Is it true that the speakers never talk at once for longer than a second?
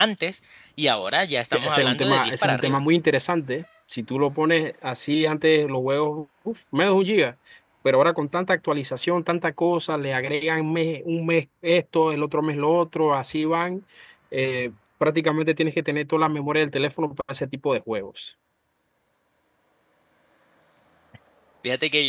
No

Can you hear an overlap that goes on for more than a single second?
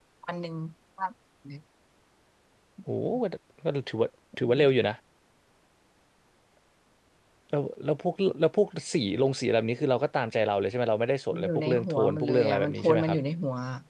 Yes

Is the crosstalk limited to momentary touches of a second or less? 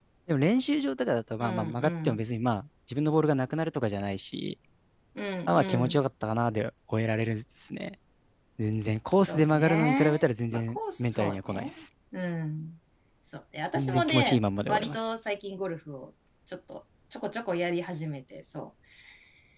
No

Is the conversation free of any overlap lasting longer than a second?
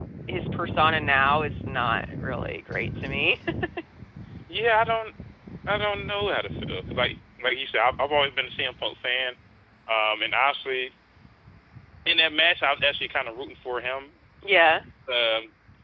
Yes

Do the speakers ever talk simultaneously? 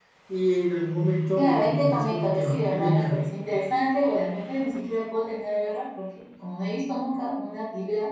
Yes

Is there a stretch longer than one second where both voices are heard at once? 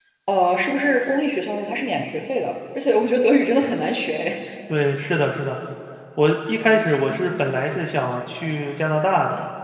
No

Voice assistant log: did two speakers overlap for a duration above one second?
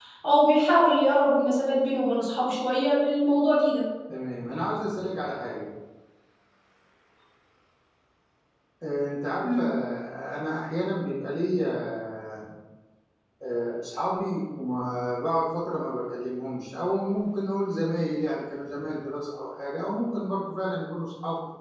No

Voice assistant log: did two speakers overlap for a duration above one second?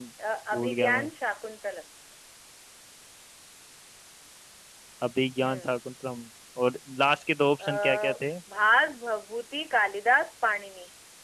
No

